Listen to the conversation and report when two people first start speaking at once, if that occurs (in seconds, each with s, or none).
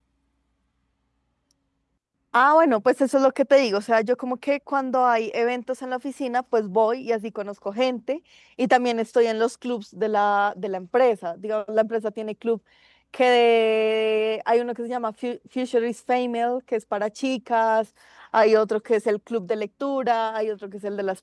none